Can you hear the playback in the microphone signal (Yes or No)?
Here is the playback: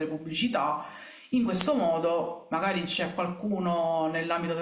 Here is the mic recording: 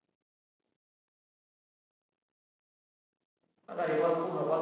No